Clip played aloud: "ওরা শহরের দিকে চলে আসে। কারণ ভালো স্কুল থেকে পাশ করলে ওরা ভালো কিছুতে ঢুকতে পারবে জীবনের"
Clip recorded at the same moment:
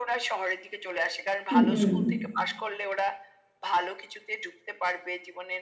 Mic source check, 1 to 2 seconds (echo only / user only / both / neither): both